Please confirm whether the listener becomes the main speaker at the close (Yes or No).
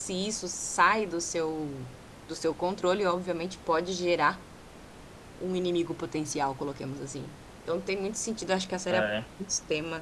No